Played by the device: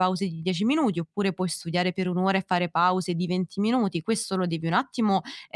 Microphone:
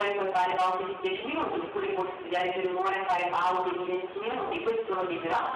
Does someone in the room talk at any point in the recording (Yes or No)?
No